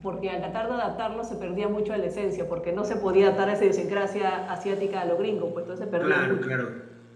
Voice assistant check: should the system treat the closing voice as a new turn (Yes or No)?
Yes